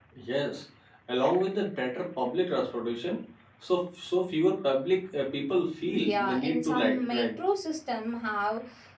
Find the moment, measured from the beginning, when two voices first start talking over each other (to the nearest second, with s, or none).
6 s